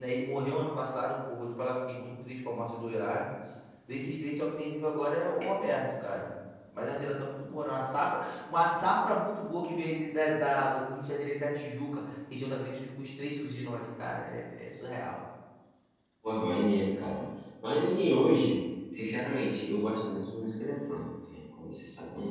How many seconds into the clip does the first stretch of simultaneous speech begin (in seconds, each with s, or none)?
none